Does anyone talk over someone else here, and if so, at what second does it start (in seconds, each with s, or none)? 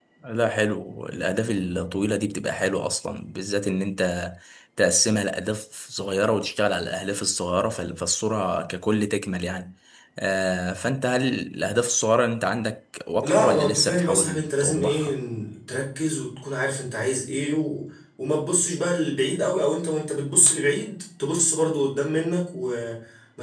13.2 s